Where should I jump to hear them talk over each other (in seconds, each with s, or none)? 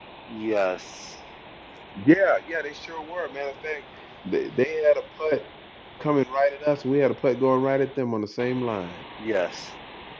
none